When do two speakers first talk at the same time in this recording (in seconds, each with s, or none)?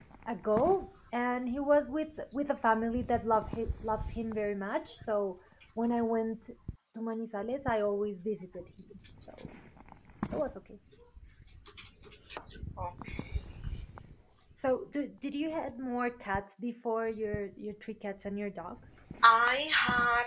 none